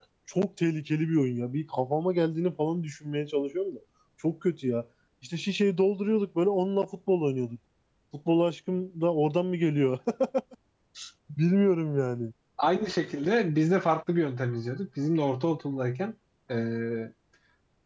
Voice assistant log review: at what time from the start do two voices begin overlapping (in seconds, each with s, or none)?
none